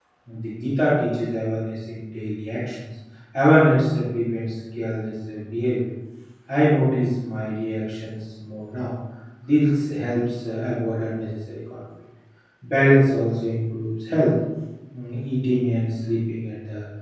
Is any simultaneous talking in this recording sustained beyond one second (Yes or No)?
No